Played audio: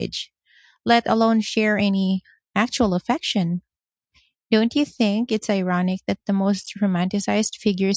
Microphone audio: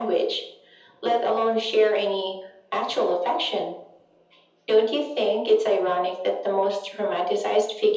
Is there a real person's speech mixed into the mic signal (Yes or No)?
No